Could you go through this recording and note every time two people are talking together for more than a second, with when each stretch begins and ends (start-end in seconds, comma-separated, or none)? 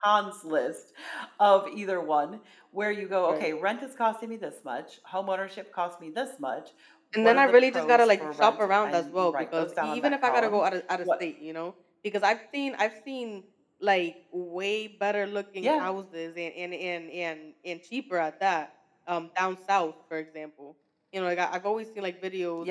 7.2-10.6